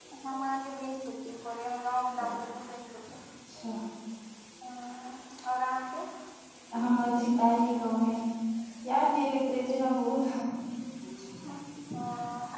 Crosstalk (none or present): none